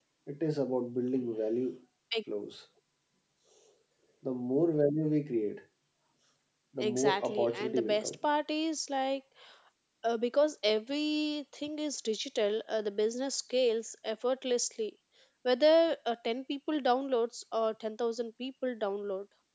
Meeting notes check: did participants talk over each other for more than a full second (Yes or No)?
Yes